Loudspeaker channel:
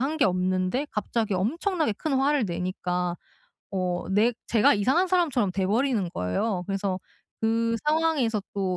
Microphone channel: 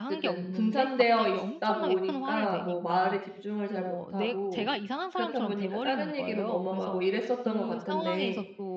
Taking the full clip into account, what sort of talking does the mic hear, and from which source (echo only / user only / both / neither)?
both